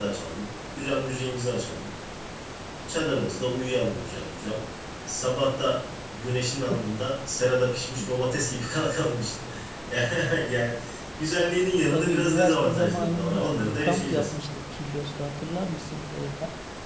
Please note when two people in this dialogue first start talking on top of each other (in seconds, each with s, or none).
11.9 s